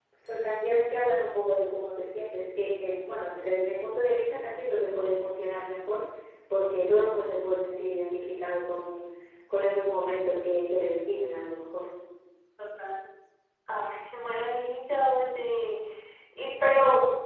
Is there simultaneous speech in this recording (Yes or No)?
No